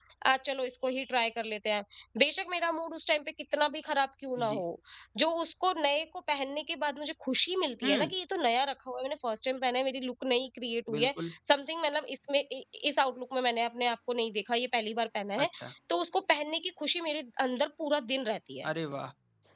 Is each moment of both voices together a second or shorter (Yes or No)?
Yes